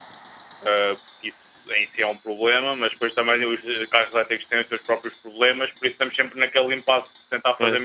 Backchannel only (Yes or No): Yes